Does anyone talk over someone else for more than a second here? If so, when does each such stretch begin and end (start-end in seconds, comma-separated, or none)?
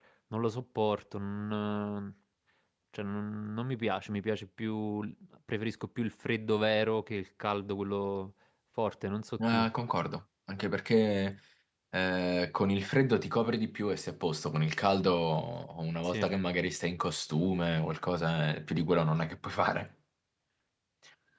none